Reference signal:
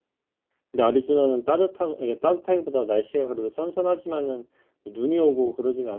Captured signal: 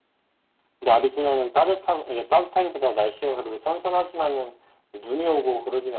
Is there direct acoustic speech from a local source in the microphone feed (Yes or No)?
No